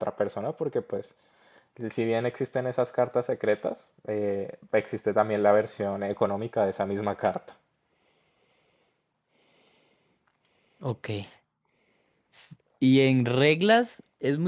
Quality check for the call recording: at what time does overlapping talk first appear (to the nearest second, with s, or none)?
none